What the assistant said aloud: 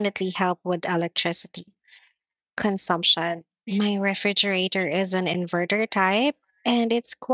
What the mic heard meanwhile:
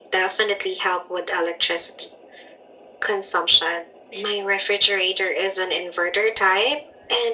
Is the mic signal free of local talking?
Yes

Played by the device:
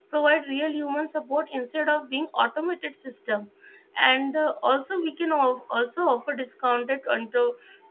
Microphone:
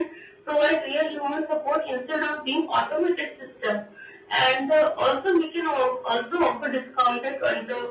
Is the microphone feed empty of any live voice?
Yes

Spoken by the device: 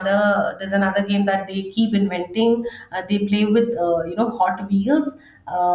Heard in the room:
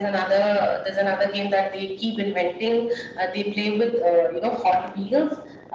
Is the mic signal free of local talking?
Yes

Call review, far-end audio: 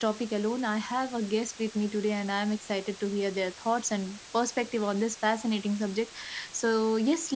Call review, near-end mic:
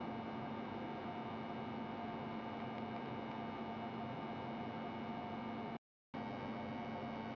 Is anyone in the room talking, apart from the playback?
No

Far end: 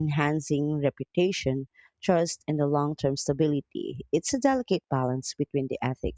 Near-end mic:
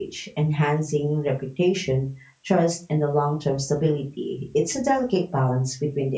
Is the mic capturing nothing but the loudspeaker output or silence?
Yes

